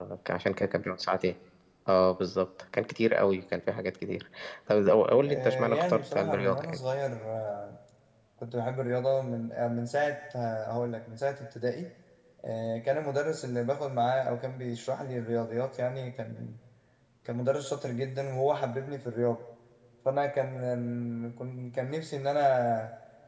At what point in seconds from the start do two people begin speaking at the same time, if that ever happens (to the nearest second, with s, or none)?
5 s